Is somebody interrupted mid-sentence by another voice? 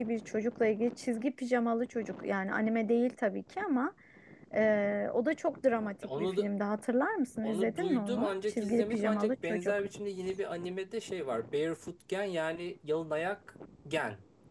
Yes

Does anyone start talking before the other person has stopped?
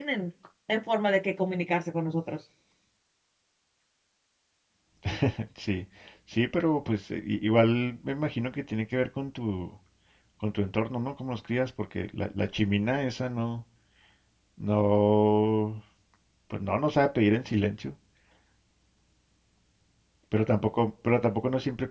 No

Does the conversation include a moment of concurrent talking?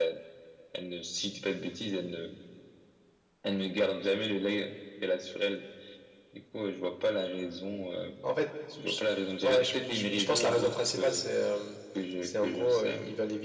Yes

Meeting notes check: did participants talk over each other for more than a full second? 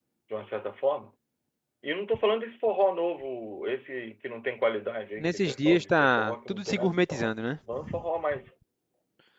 Yes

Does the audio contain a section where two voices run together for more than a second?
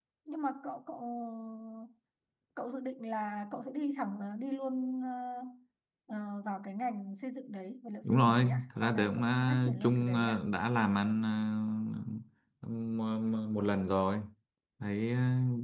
Yes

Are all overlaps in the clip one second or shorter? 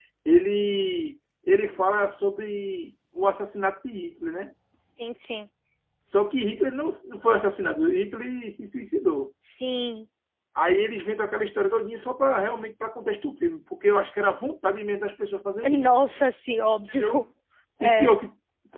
Yes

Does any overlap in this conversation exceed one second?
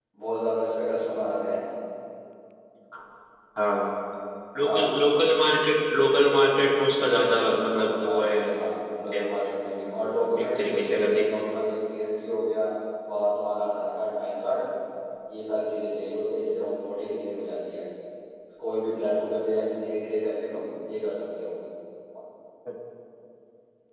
Yes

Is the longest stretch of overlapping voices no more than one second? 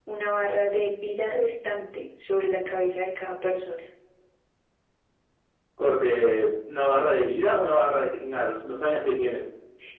Yes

